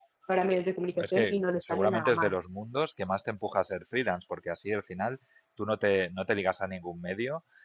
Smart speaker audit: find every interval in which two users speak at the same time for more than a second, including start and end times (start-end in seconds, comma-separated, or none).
1.0-2.4